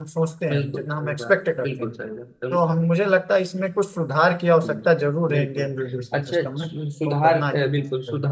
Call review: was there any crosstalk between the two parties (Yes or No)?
Yes